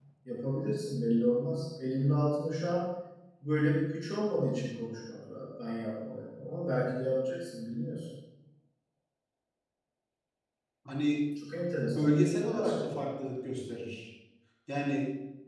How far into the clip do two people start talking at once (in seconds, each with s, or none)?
11.8 s